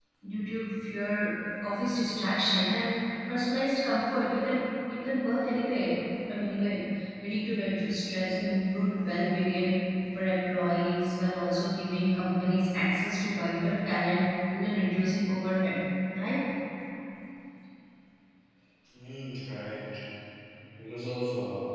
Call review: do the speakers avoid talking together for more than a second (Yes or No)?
Yes